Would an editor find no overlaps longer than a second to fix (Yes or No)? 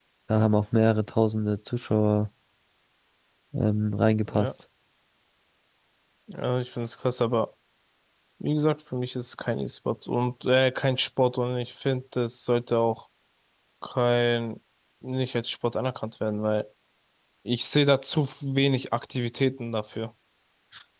Yes